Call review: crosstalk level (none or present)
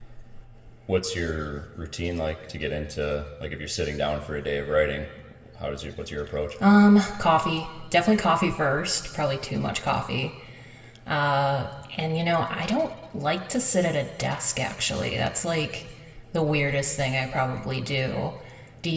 none